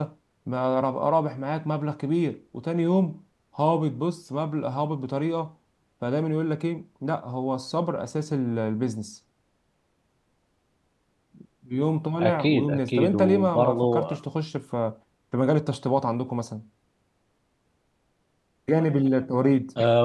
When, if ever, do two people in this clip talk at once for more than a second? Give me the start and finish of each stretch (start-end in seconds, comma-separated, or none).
12.2-14.0